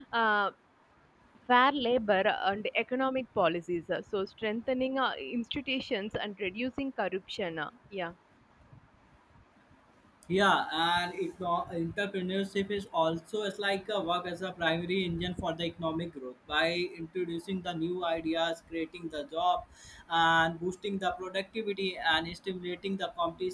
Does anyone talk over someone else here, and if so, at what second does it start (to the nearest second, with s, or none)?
none